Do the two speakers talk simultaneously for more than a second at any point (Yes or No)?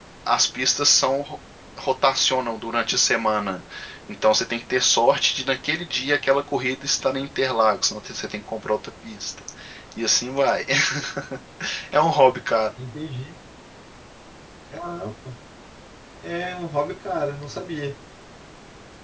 No